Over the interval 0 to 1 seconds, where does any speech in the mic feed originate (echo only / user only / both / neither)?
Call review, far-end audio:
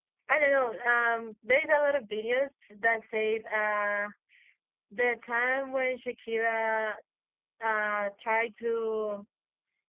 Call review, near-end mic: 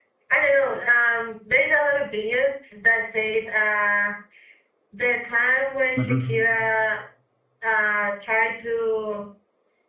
echo only